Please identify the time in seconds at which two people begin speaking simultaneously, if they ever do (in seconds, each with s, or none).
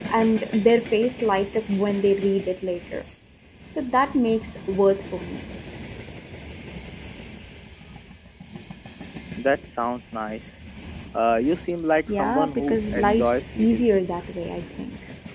12.1 s